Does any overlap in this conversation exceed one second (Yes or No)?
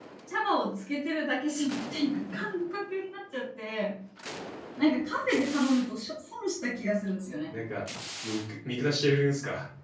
No